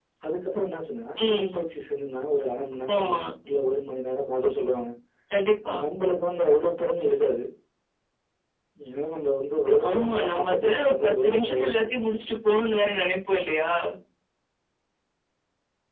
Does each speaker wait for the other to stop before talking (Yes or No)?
No